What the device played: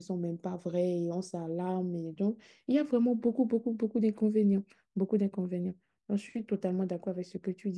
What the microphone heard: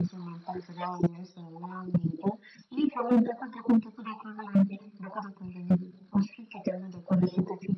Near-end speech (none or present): none